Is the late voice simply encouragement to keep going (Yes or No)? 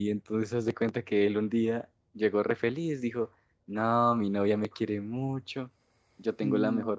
Yes